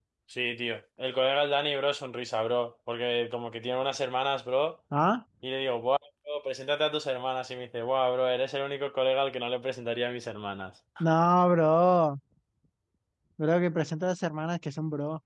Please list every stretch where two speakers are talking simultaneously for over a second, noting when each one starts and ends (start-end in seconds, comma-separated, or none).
none